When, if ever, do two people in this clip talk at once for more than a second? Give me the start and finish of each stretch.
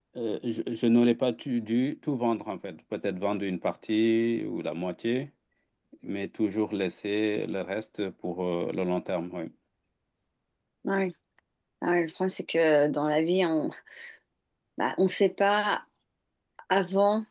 none

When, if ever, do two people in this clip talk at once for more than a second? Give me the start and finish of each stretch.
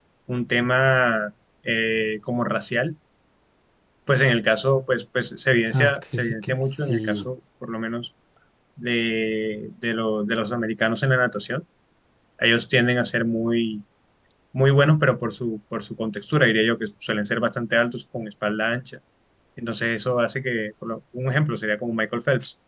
5.7-7.3

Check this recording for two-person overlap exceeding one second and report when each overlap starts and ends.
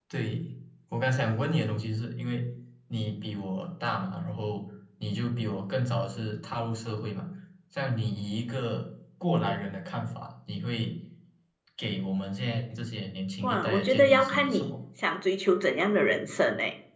13.4-14.7

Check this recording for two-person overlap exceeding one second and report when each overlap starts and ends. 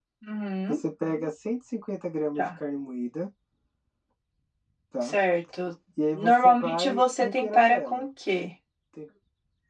6.1-8.0

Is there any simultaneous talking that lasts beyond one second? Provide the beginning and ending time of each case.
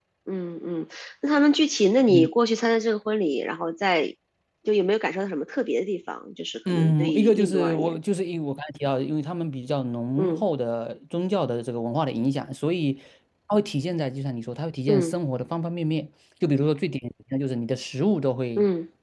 6.7-8.0

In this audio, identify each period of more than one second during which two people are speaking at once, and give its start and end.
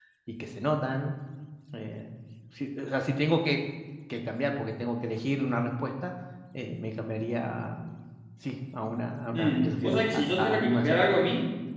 9.3-11.0

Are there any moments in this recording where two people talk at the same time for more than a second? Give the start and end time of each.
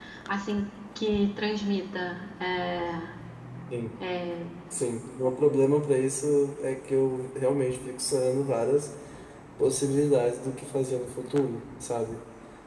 none

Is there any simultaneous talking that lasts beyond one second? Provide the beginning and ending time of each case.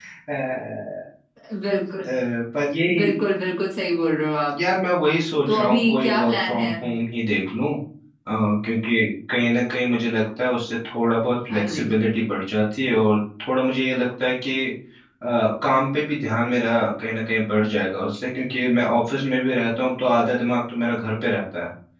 5.5-6.7

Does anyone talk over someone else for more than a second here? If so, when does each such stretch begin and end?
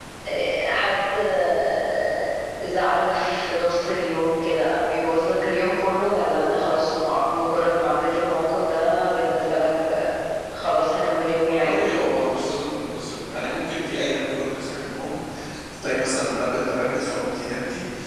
none

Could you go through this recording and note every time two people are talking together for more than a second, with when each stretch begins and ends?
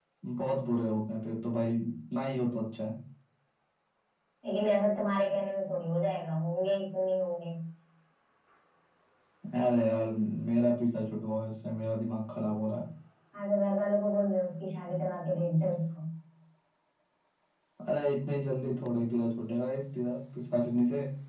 none

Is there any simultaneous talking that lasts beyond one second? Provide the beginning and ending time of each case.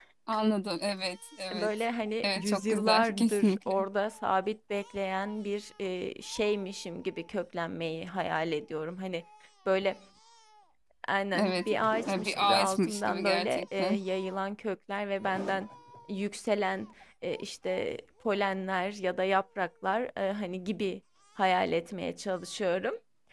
2.2-3.9, 12.1-14.0

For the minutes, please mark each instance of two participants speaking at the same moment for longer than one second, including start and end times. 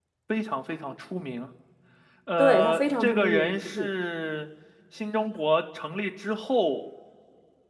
2.4-3.9

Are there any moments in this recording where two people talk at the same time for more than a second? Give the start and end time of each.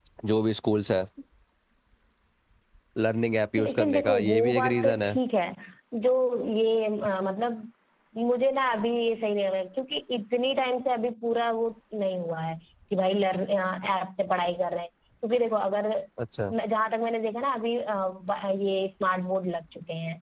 3.6-5.2

